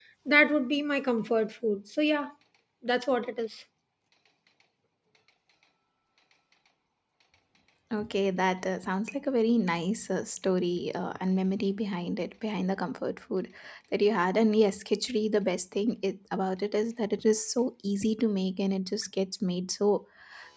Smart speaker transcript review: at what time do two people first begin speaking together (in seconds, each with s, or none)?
none